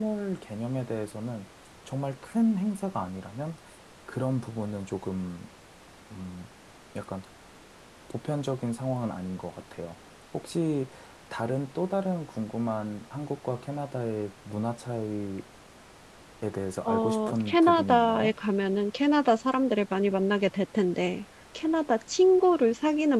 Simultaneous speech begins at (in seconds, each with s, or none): 16.9 s